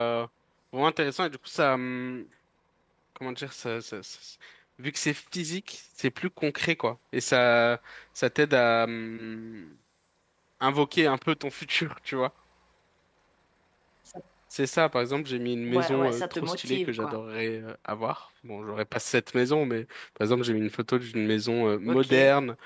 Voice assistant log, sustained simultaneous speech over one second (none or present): present